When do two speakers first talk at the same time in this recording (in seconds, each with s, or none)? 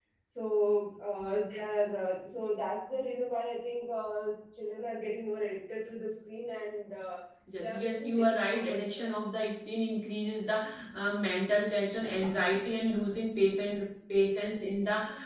7.6 s